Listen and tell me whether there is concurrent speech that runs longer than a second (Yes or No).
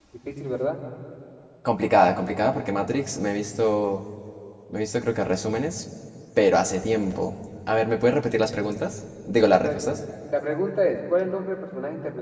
No